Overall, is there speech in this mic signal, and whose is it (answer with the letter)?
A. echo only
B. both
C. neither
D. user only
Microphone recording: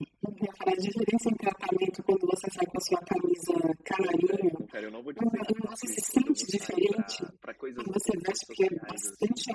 B